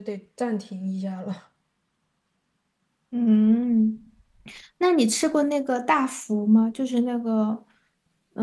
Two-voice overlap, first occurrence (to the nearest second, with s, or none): none